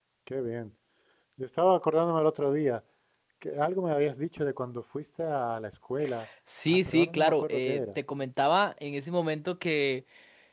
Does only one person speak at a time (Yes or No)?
No